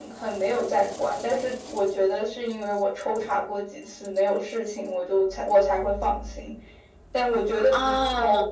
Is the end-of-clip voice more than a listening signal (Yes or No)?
No